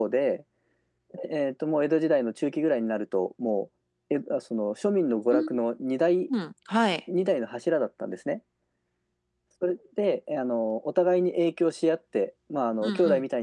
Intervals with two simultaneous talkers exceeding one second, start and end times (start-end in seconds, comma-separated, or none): none